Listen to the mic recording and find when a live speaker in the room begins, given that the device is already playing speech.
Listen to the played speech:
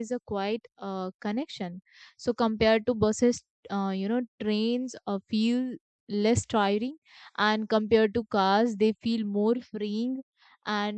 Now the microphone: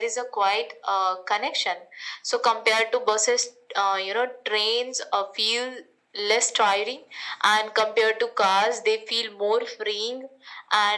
none

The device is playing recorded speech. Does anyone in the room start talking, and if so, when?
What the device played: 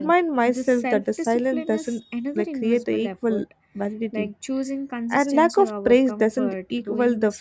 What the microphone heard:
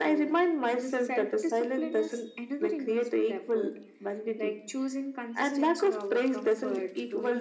none

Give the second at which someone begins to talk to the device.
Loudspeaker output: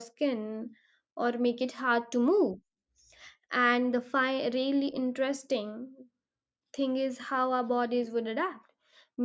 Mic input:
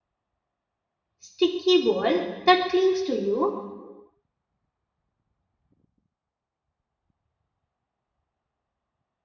1.2 s

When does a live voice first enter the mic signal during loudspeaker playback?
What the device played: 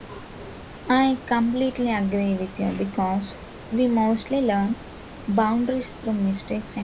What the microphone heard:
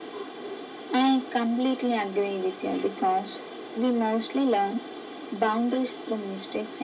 none

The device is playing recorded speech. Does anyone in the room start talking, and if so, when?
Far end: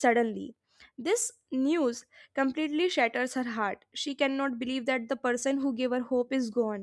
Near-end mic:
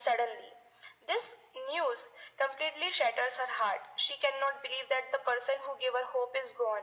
none

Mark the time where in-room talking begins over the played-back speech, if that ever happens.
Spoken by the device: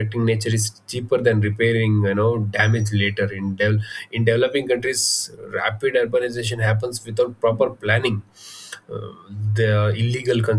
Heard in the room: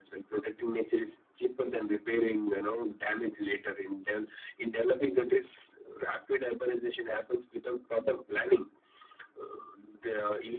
none

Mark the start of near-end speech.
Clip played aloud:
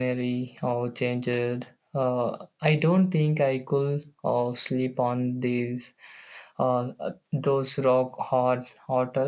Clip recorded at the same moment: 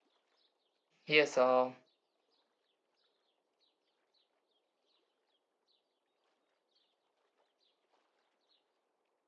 1.0 s

